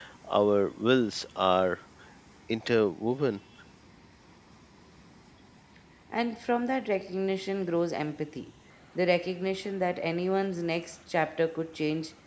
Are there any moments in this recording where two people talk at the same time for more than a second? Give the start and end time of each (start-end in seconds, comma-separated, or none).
none